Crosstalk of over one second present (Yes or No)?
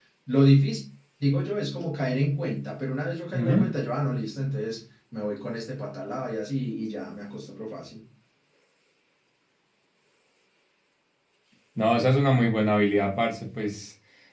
No